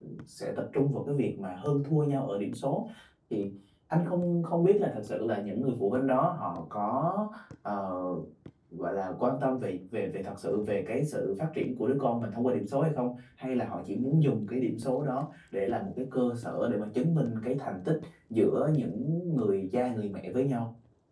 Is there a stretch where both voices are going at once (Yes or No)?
No